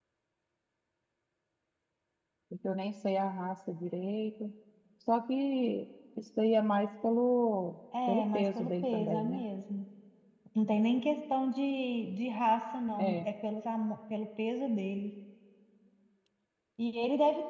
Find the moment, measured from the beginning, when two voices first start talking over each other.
8.1 s

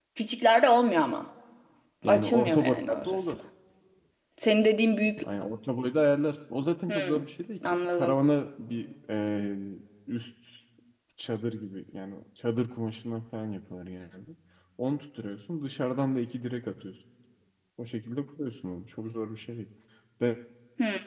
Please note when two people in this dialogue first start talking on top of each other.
2.1 s

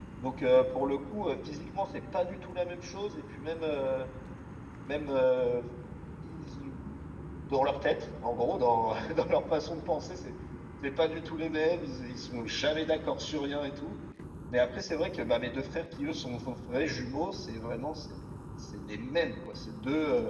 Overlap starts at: none

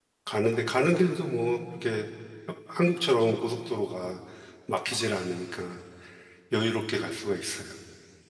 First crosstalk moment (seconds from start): none

